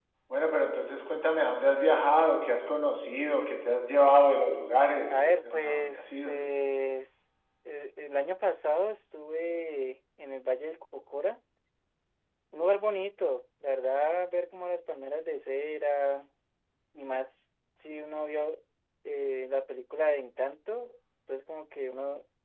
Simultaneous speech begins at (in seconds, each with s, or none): 5.1 s